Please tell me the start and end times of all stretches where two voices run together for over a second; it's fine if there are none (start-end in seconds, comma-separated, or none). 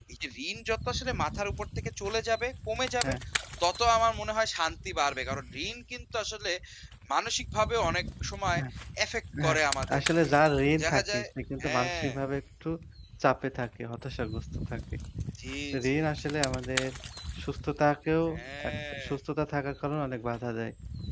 none